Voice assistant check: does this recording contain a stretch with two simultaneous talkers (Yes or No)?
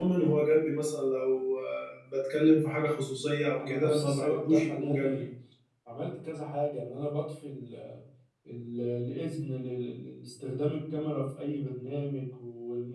Yes